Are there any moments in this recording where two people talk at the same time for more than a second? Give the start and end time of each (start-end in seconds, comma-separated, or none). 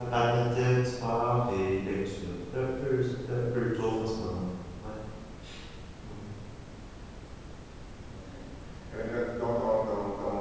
none